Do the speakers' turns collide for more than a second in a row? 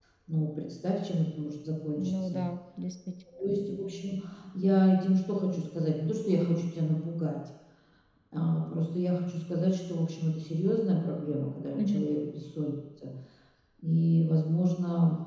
No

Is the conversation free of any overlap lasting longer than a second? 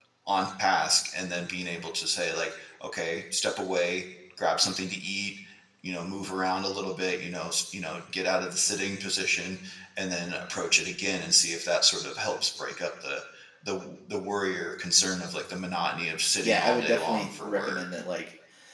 No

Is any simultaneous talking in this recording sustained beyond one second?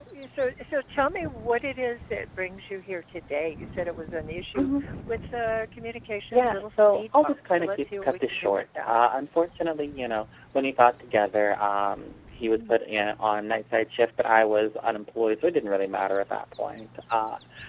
Yes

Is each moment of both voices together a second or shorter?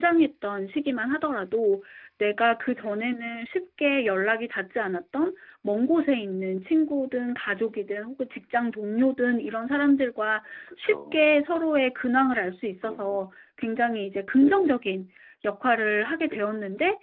Yes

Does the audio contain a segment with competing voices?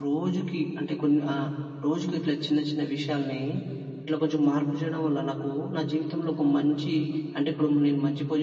No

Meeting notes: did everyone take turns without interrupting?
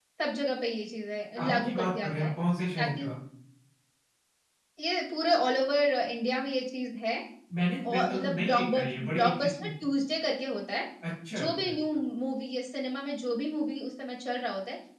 No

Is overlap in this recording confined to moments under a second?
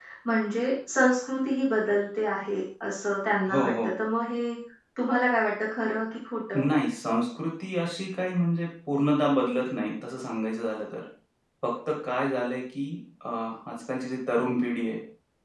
Yes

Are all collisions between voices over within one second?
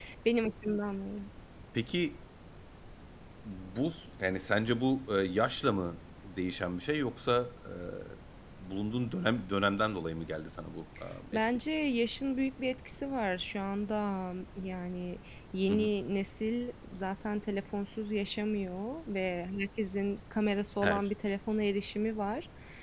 Yes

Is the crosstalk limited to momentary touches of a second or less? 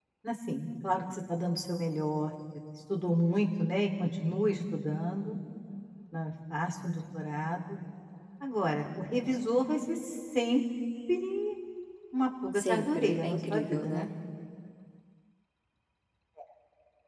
No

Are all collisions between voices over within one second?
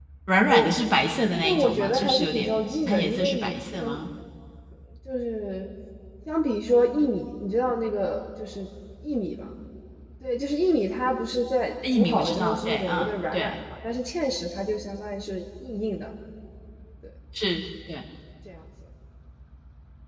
No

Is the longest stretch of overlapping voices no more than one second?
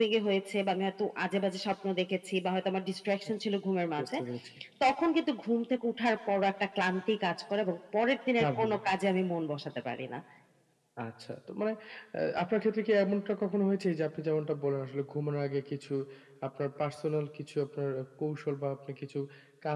Yes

